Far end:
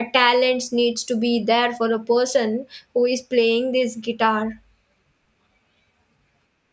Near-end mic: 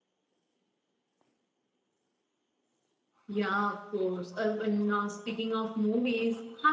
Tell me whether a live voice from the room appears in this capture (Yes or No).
Yes